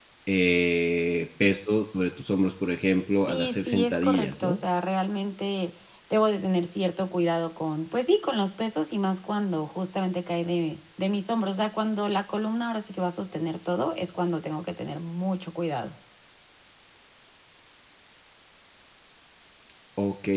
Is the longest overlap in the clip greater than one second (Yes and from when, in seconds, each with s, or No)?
Yes, from 3.1 s